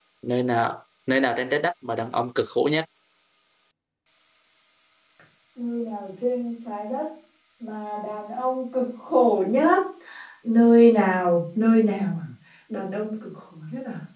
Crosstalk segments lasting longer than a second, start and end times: none

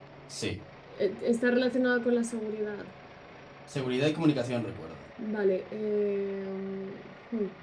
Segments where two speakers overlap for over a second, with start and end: none

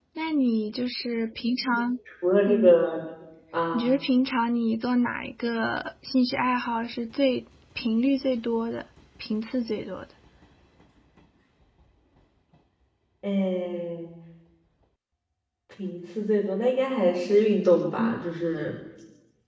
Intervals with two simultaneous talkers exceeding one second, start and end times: none

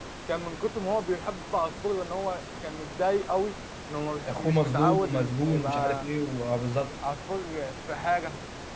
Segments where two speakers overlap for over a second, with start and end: 4.3-6.1

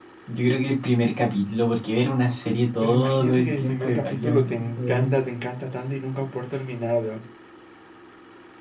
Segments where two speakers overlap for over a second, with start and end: 2.8-5.2

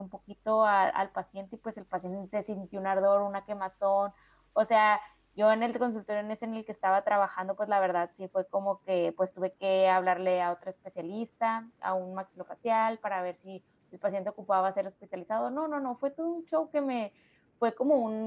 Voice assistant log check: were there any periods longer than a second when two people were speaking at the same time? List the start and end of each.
none

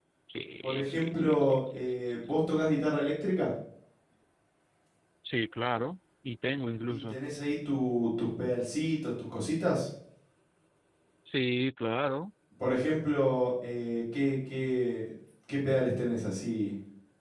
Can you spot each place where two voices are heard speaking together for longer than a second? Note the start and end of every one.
0.6-2.2

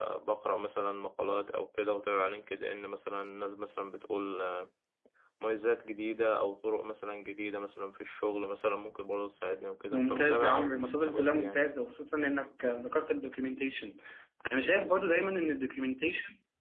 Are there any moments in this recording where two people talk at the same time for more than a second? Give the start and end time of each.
9.9-11.6

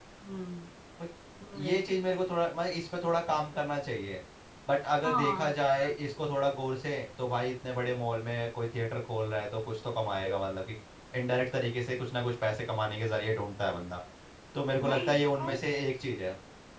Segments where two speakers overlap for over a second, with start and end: none

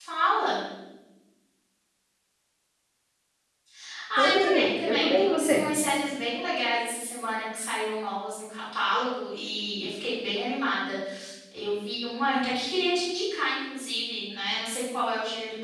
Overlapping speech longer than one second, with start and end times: 4.2-5.7

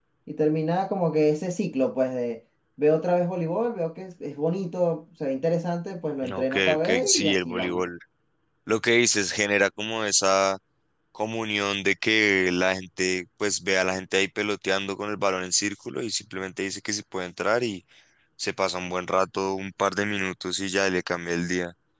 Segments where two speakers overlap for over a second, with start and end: 6.2-7.8

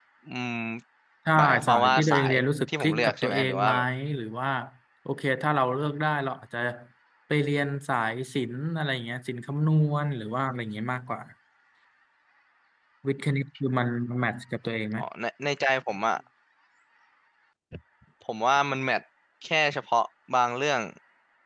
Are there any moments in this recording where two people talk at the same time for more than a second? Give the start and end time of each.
1.4-3.7

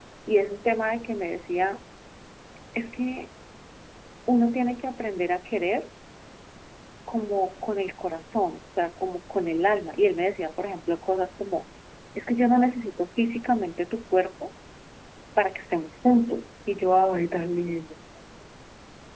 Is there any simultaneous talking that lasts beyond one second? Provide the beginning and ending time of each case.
none

